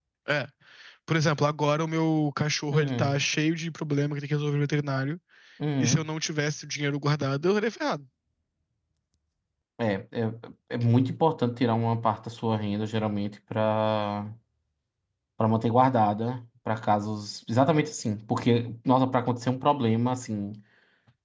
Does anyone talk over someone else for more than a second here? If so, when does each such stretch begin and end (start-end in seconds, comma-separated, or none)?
none